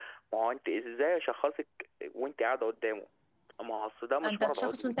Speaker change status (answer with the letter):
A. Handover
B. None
A